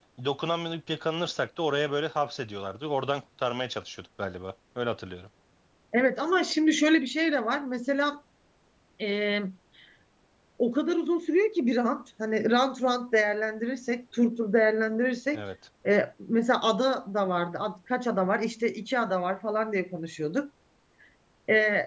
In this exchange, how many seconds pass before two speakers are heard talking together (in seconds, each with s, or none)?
none